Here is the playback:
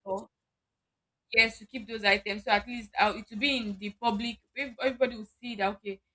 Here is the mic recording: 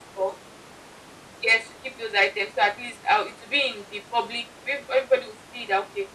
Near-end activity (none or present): none